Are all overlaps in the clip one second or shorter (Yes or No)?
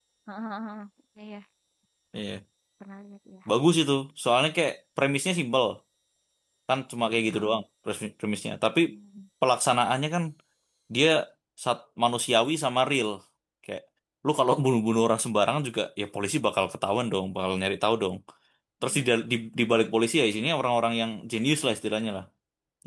Yes